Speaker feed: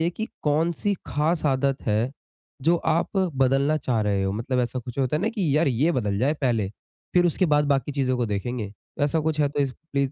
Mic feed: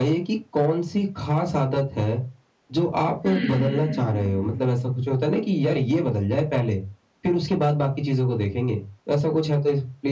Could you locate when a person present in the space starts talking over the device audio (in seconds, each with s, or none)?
3.2 s